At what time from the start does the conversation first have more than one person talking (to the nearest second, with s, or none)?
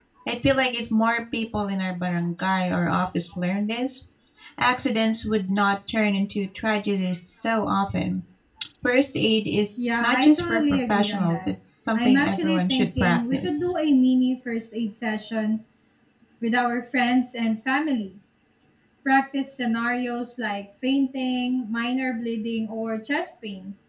10 s